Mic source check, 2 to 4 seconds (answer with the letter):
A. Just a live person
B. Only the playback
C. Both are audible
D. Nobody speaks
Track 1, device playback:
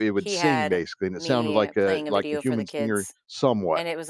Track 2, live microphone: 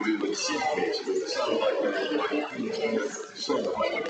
B